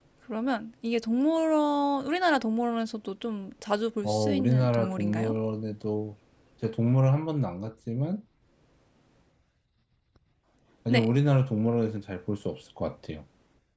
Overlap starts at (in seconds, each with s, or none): 4.0 s